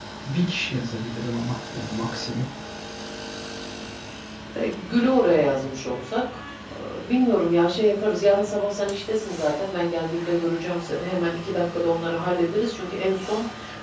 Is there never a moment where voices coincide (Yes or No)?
Yes